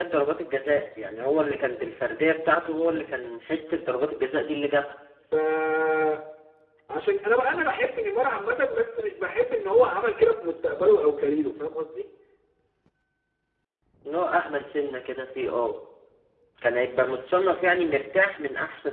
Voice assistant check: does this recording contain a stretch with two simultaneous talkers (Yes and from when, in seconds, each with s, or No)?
No